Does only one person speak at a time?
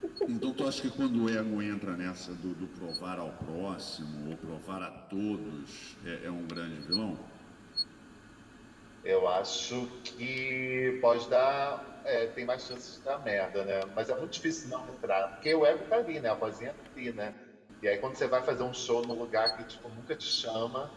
Yes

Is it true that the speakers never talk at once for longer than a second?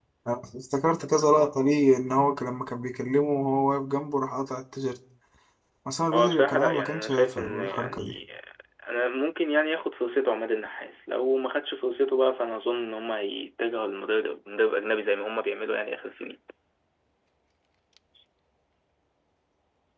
No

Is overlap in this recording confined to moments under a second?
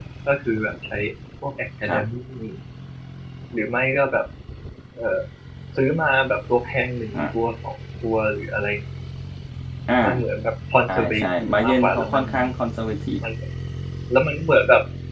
No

